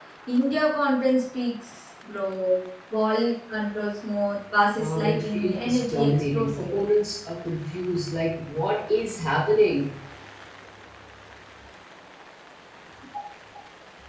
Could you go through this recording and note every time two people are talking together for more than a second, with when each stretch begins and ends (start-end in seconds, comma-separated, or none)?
4.8-6.8